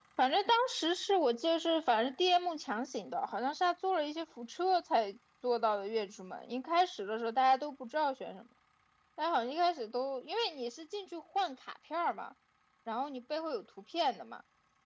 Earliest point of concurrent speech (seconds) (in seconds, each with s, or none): none